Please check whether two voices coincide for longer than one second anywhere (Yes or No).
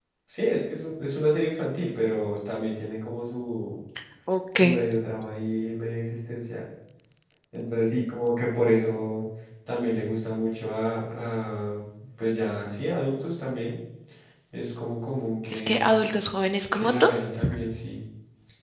No